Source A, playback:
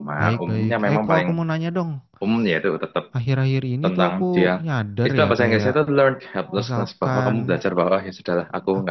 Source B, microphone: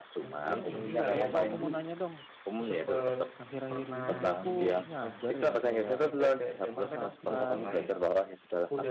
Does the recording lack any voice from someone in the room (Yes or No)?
No